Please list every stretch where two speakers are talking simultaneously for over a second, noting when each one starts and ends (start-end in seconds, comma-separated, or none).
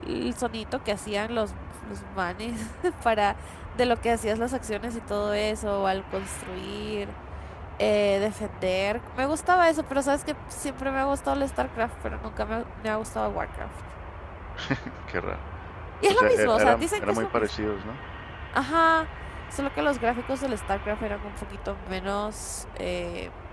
16.1-17.7